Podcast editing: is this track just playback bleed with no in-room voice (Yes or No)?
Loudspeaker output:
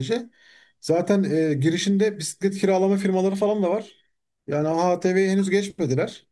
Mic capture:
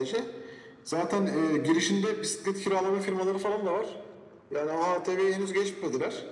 Yes